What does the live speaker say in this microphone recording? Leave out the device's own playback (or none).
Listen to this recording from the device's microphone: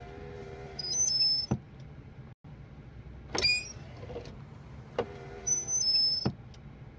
none